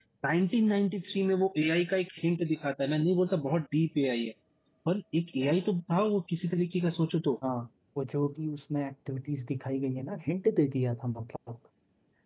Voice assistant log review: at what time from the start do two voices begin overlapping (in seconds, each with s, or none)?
none